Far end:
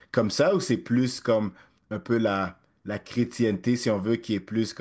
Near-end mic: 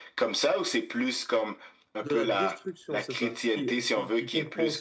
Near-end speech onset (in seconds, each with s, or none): 2.0 s